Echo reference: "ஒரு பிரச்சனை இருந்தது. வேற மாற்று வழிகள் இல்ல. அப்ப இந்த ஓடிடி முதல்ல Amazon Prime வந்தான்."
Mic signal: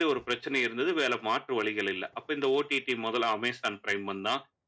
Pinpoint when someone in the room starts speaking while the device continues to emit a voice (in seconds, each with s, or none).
none